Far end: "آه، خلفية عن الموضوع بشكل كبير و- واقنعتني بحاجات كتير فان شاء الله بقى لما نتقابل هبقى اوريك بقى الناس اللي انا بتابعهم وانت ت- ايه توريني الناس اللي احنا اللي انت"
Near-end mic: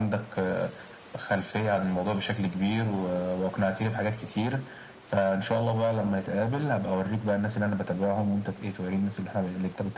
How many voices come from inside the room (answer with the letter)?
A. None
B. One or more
A